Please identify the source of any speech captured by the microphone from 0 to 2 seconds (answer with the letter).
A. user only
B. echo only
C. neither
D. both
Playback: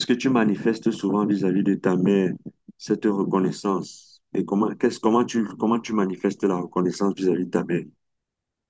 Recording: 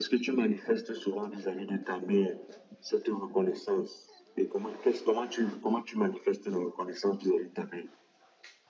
B